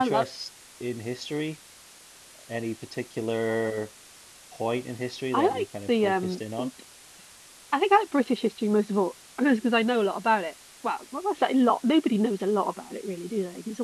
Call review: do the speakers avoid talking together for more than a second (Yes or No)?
No